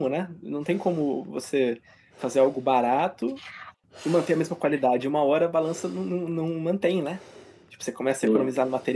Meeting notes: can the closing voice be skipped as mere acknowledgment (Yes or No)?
Yes